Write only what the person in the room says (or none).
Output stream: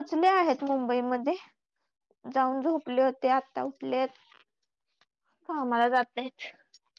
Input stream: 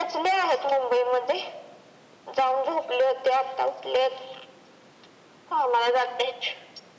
none